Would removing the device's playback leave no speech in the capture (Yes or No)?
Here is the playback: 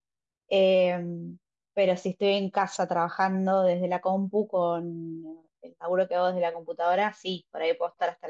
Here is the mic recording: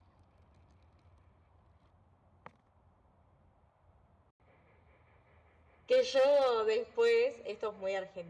No